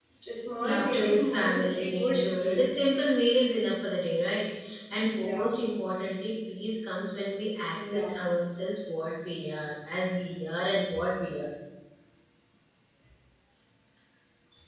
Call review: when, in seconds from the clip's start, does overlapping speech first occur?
1 s

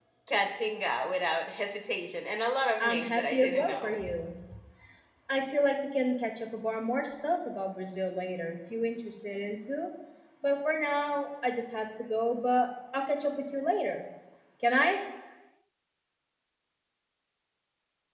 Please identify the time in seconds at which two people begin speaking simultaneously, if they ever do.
3 s

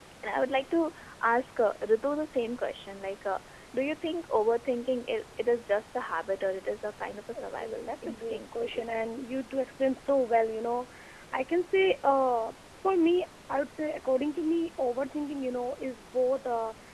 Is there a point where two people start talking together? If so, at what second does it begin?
8 s

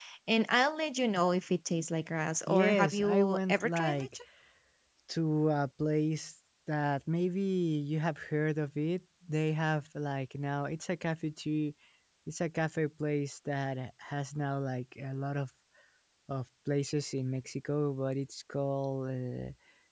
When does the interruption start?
2 s

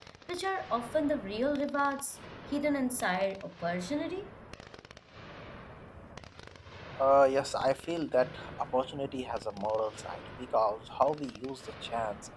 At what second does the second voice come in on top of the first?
none

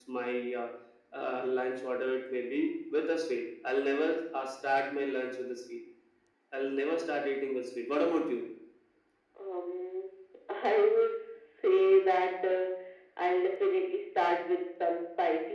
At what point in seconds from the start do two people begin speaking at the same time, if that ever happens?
none

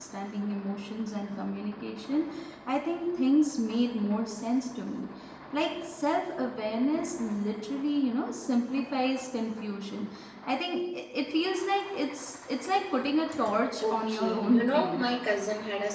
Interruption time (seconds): 14 s

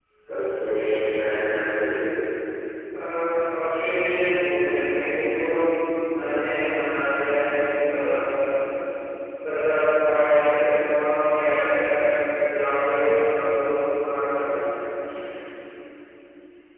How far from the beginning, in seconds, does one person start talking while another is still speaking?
none

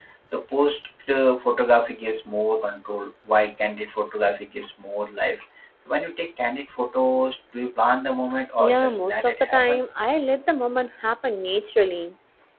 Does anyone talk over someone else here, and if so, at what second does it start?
9 s

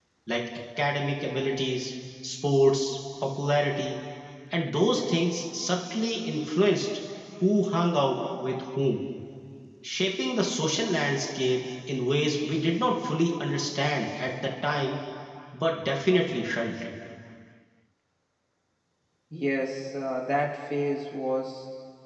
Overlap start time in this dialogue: none

